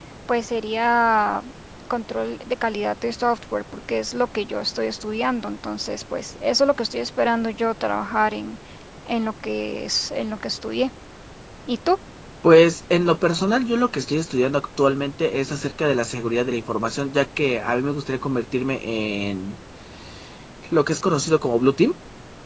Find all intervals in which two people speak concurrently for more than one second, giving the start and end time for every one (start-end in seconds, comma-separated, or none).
none